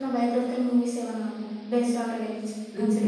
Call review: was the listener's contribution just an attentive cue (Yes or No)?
No